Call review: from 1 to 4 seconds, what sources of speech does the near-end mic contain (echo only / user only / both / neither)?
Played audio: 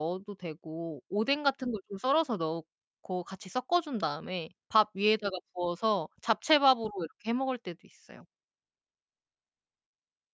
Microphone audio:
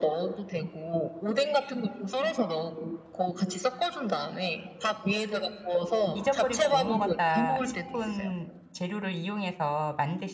echo only